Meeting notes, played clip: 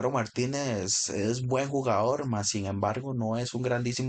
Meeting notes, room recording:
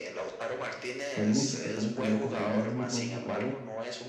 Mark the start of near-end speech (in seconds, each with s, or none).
1.1 s